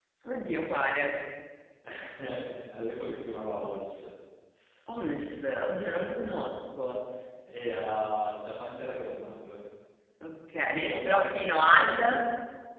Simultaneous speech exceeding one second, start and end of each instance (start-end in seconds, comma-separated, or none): 10.7-12.1